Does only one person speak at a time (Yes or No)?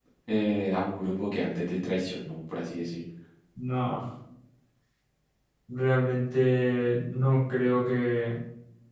Yes